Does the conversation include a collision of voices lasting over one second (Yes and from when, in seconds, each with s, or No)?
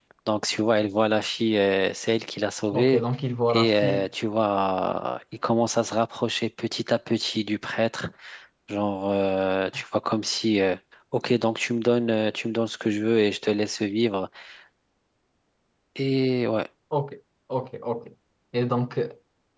No